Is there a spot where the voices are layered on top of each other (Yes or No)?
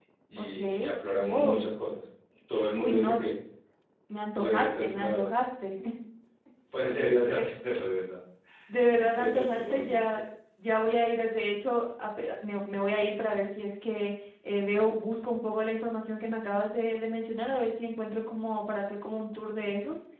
Yes